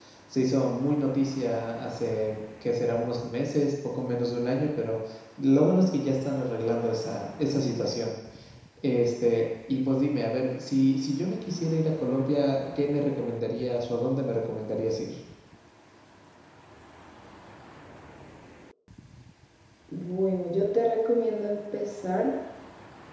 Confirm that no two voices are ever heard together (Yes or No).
Yes